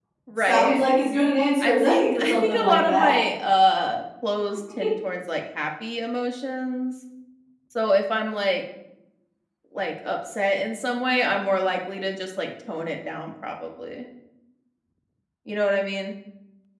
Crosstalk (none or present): present